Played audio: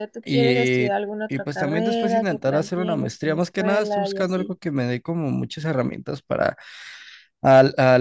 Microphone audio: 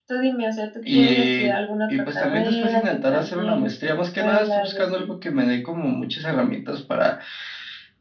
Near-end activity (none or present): none